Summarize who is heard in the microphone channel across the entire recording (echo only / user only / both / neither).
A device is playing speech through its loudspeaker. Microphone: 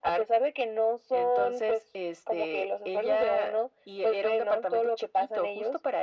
echo only